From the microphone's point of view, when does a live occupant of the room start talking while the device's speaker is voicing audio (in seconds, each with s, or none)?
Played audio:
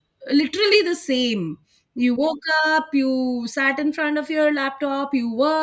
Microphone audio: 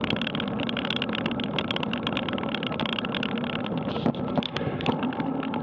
none